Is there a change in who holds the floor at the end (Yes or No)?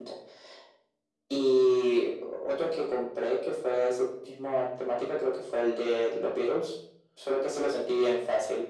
No